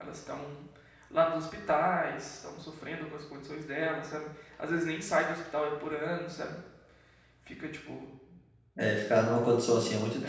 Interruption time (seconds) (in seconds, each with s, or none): none